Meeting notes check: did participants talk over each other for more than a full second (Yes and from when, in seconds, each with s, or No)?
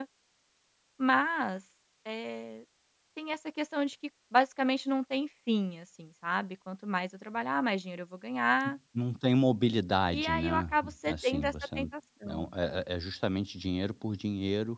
Yes, from 10.1 s